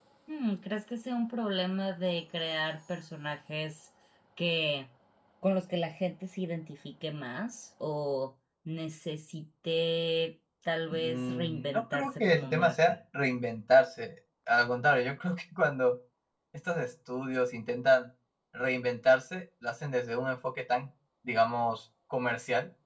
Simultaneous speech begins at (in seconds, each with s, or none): 10.9 s